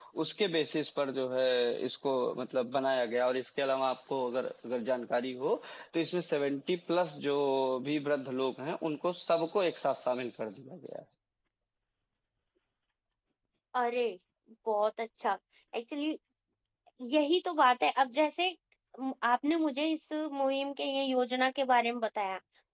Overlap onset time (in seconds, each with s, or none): none